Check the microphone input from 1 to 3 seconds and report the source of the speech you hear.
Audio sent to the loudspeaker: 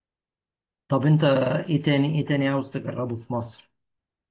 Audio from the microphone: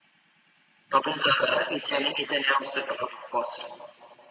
echo only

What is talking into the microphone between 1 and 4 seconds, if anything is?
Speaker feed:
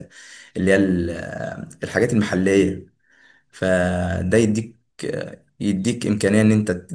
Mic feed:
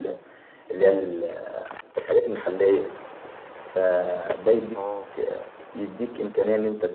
echo only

